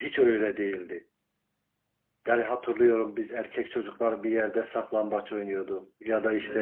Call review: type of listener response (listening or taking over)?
listening